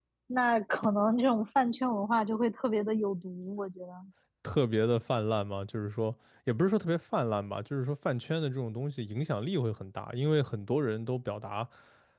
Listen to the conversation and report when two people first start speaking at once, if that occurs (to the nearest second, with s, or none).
none